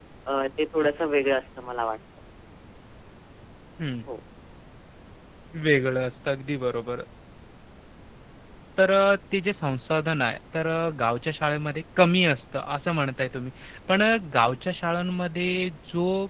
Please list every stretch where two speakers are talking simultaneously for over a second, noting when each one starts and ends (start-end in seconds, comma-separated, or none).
none